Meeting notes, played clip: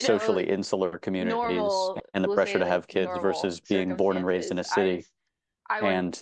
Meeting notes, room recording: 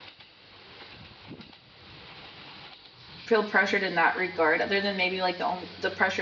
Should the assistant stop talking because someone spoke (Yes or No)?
Yes